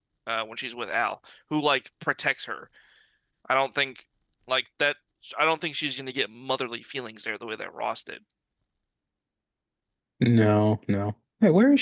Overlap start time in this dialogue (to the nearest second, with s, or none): none